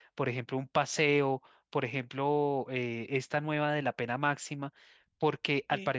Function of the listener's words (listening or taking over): listening